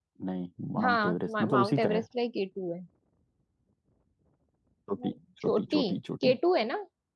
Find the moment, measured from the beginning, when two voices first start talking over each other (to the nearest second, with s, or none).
1 s